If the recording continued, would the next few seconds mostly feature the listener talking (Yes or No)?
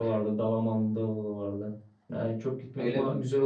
No